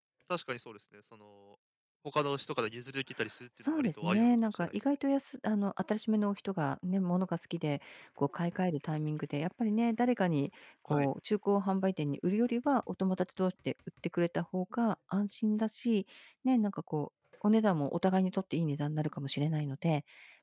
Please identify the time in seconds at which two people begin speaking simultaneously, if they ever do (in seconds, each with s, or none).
3.6 s